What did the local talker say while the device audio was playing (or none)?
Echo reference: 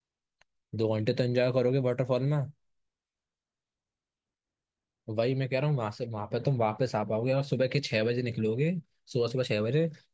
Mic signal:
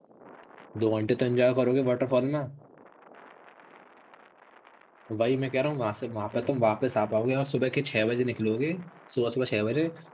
none